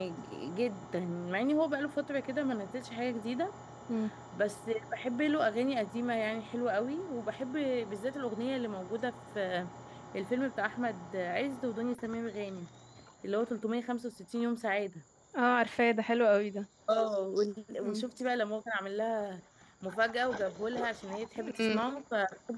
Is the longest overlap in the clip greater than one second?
No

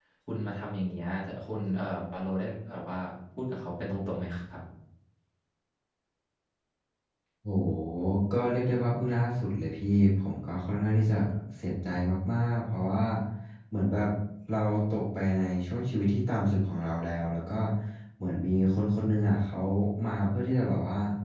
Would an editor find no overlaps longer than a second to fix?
Yes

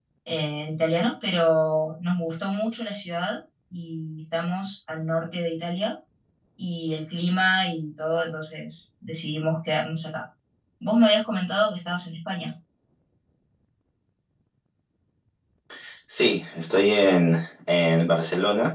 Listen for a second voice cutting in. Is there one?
No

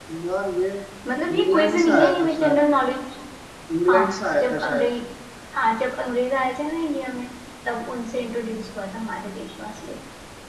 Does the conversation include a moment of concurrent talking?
Yes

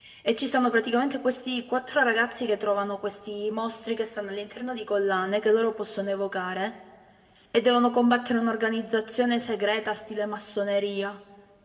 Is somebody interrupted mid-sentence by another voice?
No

